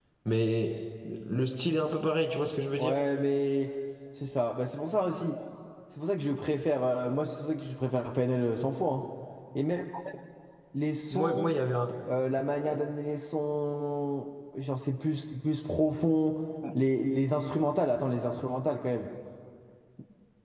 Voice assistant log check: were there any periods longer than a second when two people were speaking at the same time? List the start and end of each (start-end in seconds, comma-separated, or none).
none